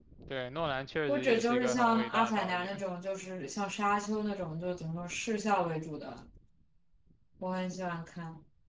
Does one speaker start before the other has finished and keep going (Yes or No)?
Yes